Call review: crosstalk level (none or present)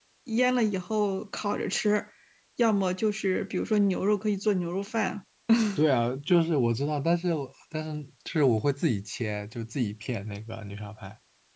none